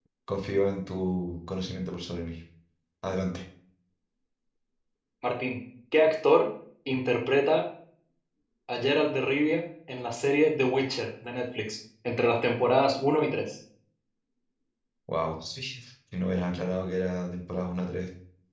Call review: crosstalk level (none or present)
none